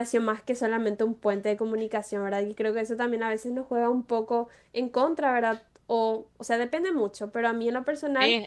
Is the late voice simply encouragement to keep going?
No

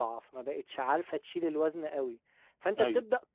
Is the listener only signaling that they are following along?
Yes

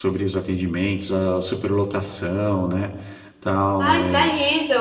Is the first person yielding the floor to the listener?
Yes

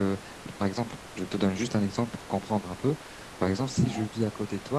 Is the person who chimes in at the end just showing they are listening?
Yes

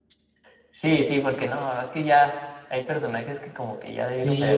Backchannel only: No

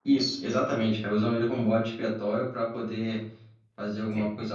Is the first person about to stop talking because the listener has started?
No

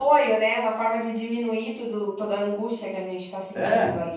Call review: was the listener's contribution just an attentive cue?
No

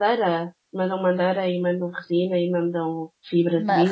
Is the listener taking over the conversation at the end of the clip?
Yes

